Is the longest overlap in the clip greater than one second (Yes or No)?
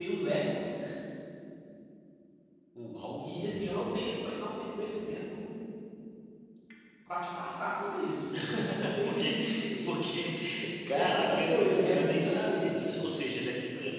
Yes